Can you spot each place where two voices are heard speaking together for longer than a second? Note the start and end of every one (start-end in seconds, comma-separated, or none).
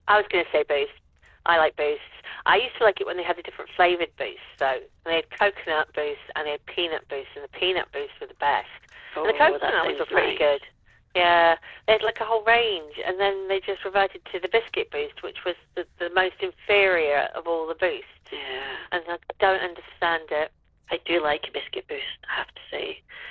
9.2-10.6